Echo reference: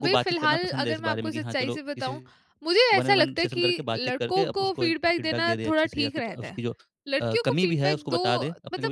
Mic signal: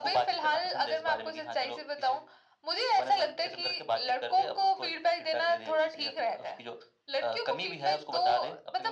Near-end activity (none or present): none